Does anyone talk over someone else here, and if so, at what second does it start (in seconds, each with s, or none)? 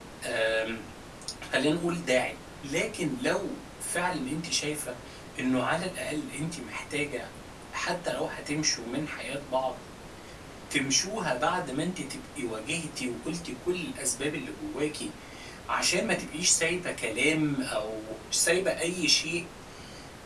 none